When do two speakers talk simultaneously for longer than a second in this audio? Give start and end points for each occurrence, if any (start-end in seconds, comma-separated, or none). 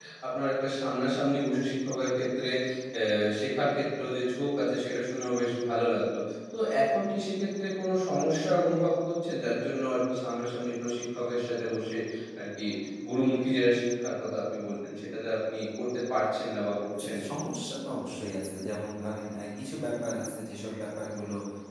none